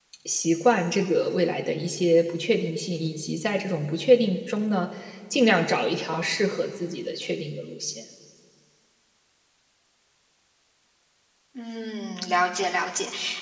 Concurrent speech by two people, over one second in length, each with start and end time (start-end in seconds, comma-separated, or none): none